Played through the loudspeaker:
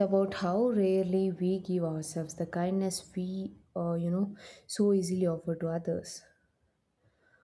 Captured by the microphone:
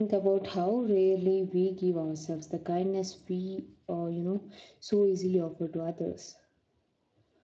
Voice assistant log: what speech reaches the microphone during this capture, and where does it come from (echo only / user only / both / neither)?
echo only